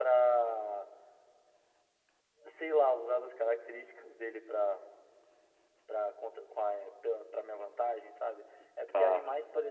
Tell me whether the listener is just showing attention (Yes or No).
Yes